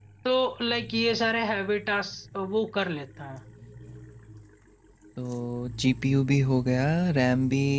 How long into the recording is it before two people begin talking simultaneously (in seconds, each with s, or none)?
none